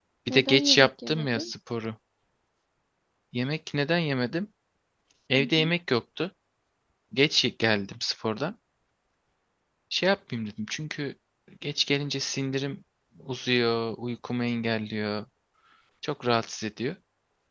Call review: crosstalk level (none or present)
present